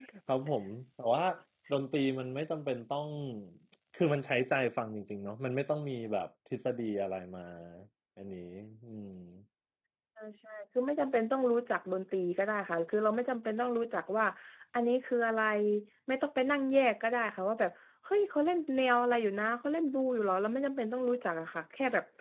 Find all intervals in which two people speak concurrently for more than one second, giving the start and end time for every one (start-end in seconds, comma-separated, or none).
none